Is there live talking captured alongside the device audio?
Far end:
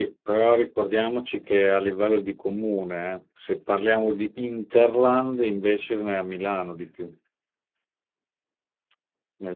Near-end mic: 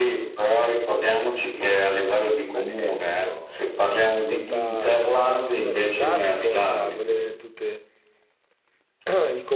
Yes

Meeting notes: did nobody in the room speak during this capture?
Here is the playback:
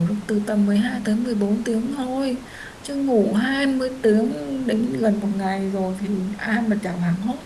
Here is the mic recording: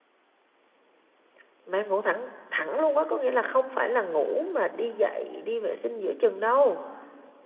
No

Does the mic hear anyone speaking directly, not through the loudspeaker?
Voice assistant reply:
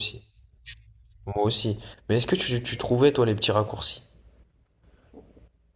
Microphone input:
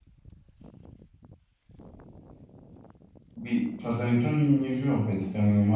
Yes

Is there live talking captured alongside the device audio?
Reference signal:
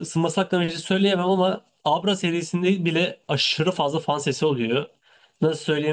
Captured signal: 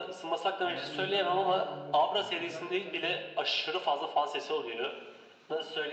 Yes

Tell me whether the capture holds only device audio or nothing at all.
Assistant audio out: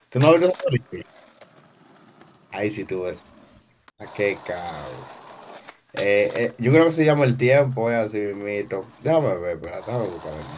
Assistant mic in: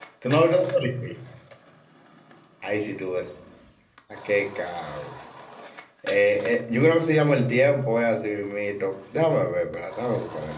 Yes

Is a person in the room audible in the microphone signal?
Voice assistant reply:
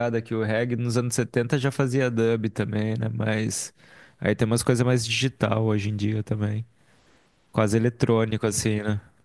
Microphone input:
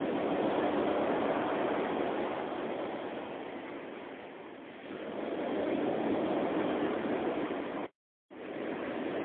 No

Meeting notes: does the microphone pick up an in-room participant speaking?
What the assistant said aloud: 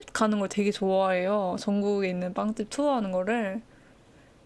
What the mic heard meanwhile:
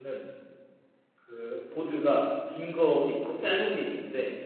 Yes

